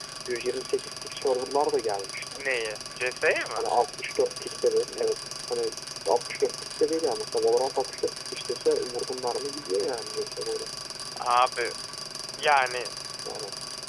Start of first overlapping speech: none

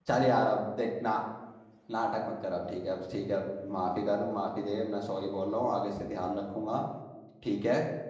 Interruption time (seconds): none

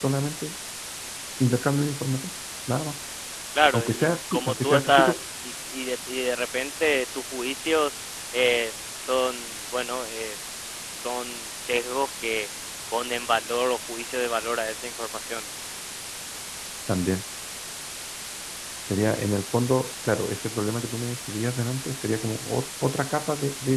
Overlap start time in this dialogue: 4 s

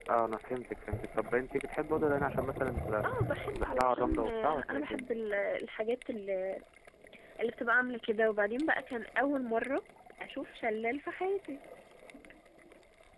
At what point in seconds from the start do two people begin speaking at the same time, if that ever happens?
4 s

